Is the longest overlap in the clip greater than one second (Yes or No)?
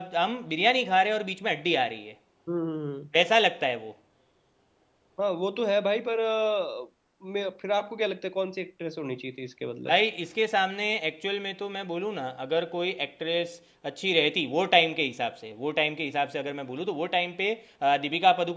No